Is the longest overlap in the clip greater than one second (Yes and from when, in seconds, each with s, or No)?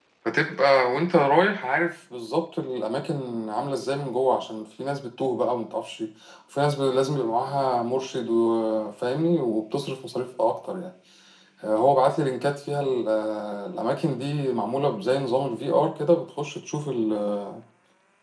No